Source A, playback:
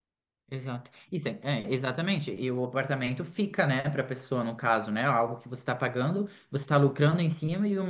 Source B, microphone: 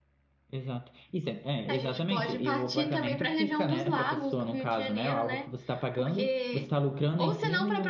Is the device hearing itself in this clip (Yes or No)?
Yes